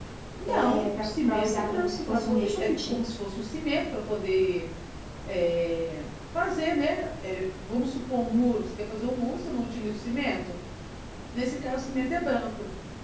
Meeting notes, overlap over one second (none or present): present